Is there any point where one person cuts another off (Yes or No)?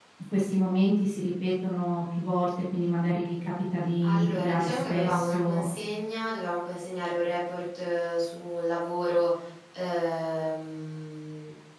Yes